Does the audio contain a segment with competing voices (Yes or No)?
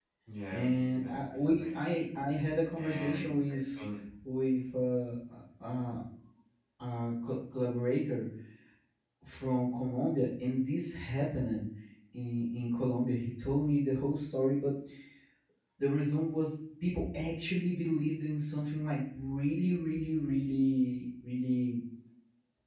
Yes